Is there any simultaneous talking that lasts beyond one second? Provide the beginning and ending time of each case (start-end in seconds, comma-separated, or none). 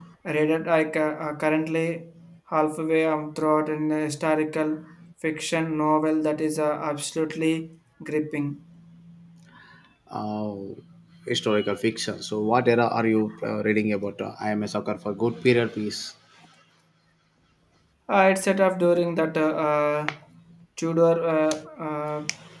none